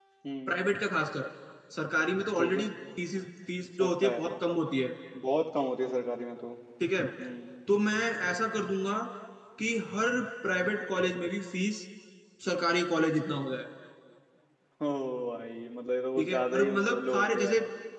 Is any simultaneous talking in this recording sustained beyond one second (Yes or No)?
Yes